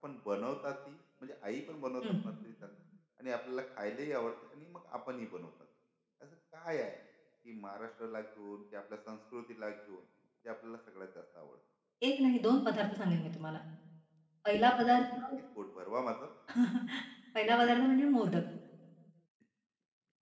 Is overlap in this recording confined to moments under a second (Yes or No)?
Yes